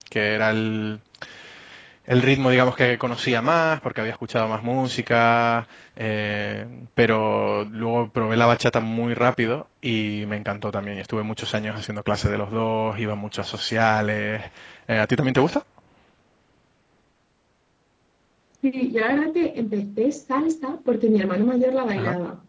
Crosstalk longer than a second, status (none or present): none